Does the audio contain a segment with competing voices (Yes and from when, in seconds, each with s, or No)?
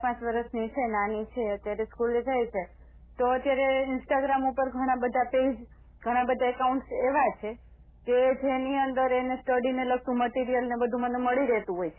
No